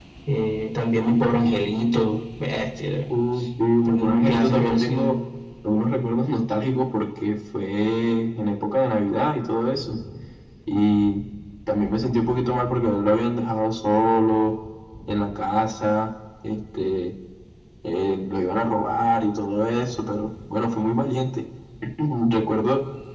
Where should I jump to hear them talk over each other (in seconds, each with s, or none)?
3.9 s